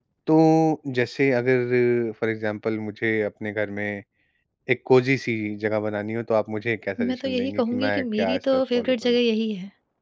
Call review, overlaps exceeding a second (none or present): present